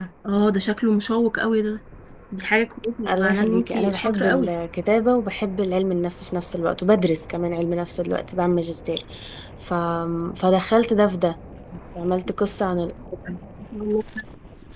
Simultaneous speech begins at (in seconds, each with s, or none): 3.1 s